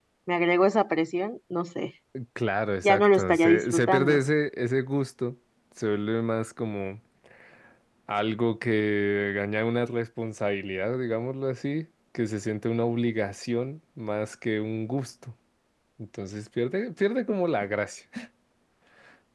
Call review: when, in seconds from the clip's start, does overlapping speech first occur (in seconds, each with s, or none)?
2.8 s